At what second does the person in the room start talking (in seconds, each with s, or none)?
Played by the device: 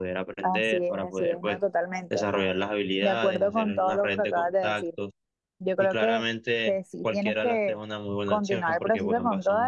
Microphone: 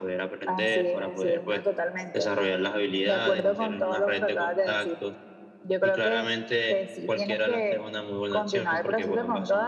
none